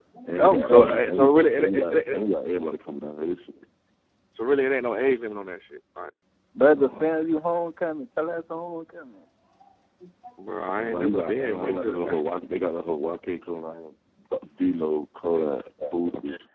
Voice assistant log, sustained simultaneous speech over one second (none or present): present